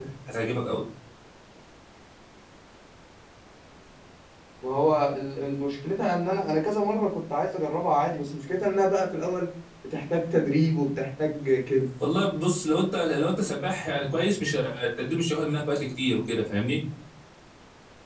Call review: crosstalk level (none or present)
none